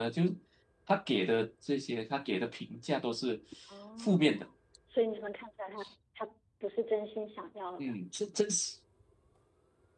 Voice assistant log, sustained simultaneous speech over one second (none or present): none